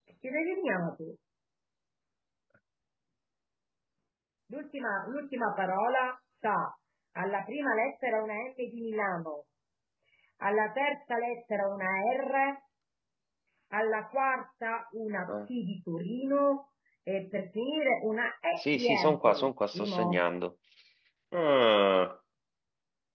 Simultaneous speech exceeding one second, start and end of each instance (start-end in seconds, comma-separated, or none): 18.6-20.2